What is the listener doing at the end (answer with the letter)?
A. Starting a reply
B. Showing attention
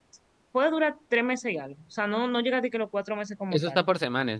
A